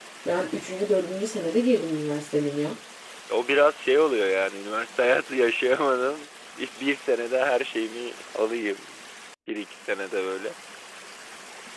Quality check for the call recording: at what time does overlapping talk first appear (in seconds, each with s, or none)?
none